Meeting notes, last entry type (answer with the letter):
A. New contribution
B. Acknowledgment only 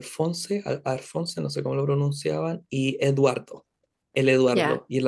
A